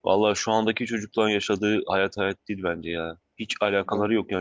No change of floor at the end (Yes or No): Yes